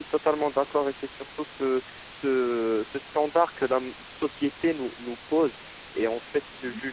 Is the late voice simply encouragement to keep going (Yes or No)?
Yes